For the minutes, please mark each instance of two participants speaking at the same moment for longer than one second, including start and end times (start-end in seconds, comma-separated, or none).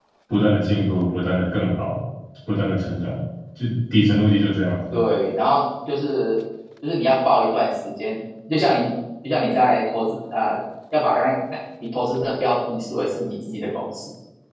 none